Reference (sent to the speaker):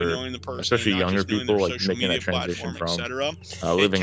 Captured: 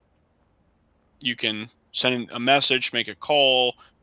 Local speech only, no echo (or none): you can send a message, make a call,